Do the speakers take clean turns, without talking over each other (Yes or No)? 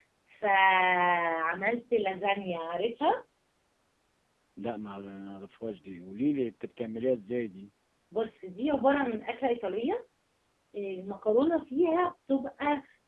Yes